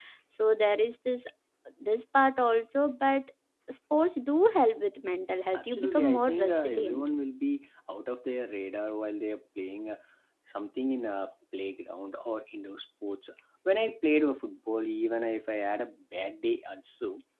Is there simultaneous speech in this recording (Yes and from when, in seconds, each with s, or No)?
Yes, from 5.5 s